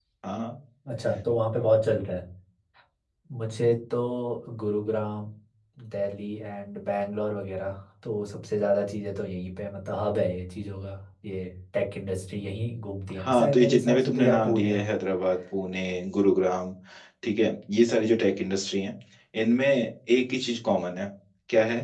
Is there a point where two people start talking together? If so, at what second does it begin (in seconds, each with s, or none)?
13.1 s